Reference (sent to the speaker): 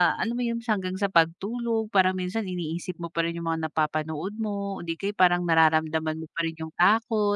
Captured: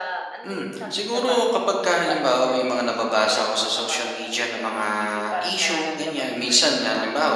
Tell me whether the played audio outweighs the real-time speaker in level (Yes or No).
No